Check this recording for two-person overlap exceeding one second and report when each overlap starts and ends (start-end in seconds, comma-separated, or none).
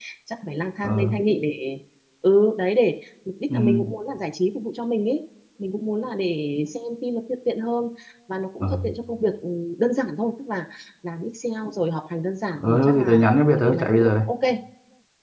12.6-14.2